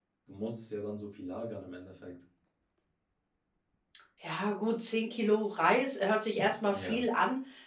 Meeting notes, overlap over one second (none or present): none